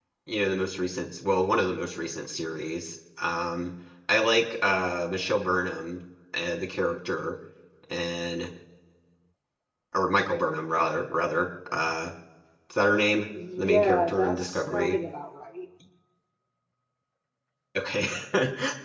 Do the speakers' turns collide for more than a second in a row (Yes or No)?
Yes